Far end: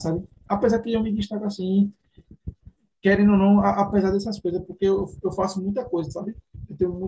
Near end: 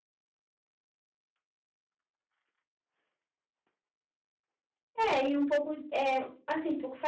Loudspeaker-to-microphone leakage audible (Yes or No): No